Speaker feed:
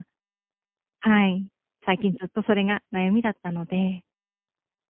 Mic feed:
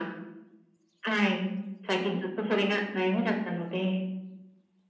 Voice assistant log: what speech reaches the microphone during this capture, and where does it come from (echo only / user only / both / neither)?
echo only